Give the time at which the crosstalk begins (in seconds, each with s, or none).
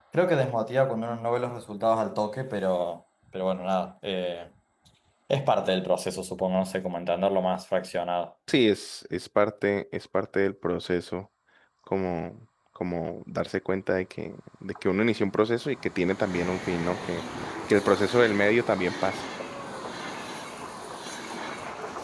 none